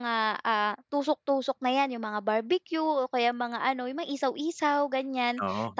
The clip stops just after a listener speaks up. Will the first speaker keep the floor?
Yes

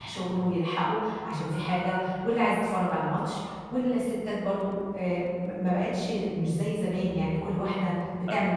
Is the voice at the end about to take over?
No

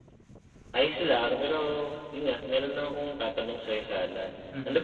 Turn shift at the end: No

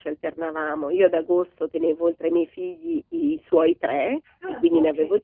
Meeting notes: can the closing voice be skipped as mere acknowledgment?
Yes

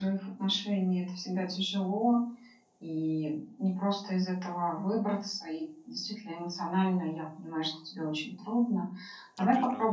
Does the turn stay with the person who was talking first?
Yes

